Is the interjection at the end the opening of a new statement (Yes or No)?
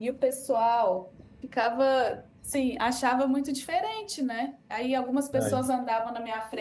No